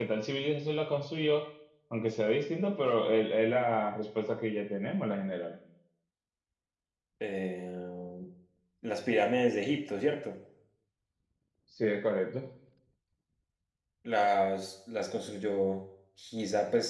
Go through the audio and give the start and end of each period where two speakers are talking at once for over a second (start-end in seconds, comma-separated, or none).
none